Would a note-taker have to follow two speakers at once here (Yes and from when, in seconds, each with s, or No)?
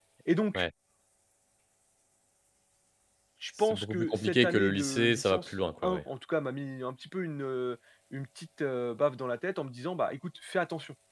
Yes, from 3.6 s